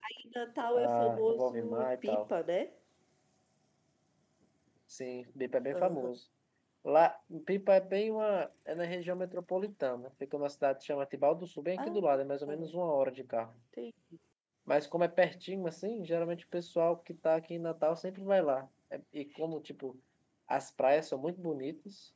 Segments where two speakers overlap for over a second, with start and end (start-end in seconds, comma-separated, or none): 0.7-2.3